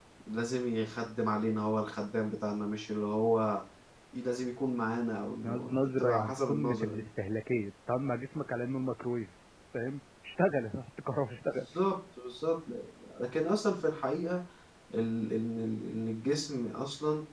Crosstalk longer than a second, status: present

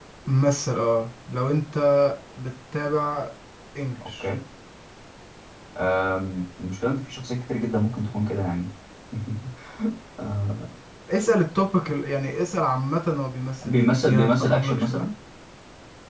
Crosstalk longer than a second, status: present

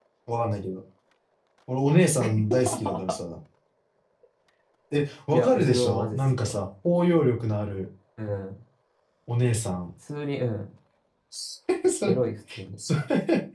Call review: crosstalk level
present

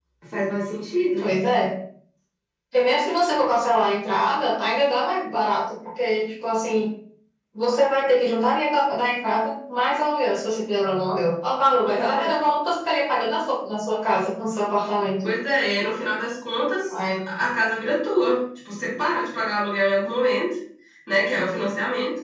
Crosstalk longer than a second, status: none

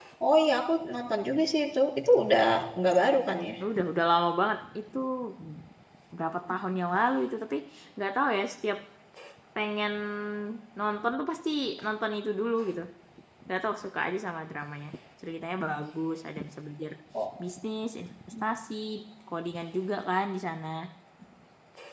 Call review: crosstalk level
none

